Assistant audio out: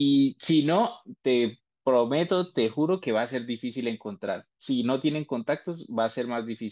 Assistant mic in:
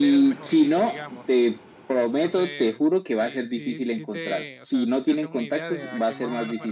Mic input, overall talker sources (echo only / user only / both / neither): both